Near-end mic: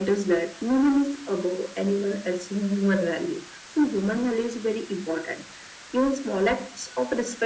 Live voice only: none

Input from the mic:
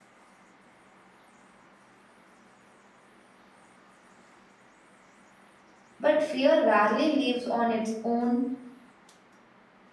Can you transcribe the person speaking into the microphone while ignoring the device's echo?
but fear rarely lives on its own.

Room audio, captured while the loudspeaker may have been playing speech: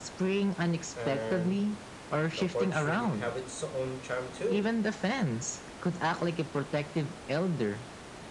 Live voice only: And the porch would have its own charm too.

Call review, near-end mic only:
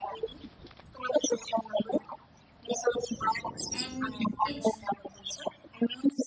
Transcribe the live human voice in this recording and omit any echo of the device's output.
and it's

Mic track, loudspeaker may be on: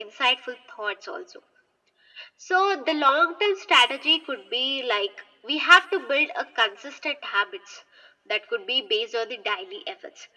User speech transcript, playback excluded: none

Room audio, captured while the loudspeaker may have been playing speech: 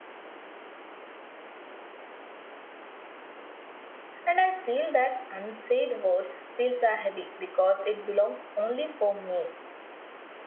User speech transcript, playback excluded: And I feel that unsaid words feels are heavy because it belongs only for me.

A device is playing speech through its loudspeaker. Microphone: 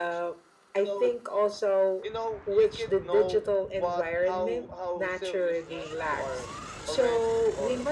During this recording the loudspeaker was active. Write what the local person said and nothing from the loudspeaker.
none

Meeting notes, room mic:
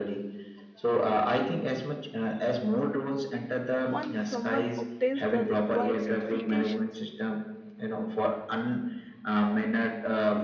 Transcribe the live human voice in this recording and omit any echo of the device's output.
Once someone obtains the required certifications,

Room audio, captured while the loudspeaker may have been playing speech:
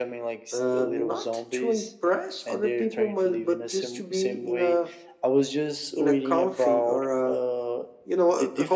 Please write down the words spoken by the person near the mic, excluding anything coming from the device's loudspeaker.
none

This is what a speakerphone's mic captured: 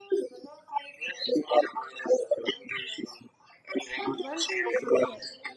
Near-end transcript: But one thing is clear

